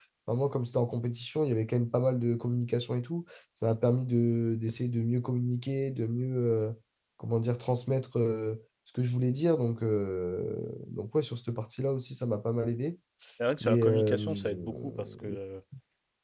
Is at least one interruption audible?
Yes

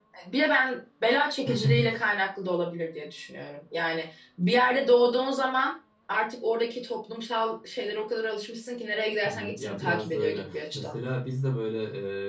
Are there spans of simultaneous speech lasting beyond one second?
Yes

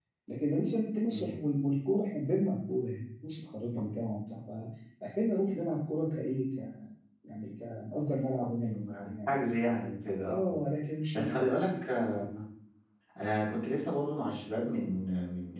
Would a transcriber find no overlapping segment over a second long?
Yes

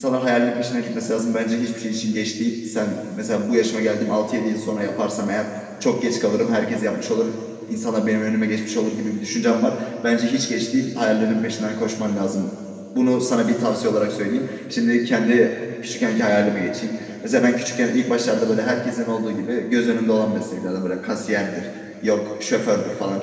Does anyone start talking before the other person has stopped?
No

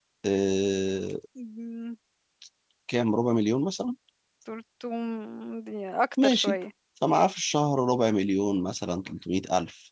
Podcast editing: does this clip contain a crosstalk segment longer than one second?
No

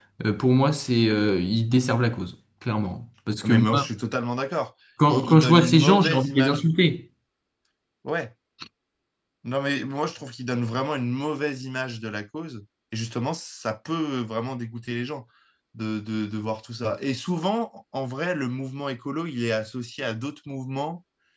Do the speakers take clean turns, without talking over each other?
No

